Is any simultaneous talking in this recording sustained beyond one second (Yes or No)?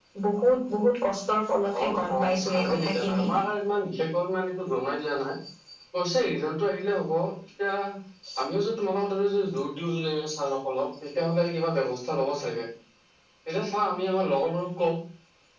Yes